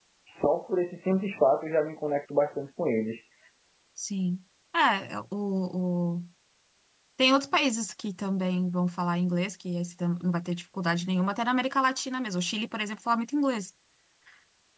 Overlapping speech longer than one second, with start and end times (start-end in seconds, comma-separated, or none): none